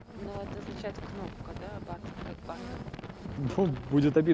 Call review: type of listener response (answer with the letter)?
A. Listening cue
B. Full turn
B